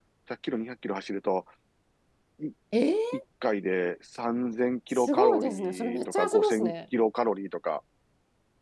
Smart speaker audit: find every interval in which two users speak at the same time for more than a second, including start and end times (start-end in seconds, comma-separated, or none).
4.9-6.7